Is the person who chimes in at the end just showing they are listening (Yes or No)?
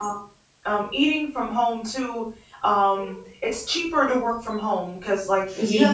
Yes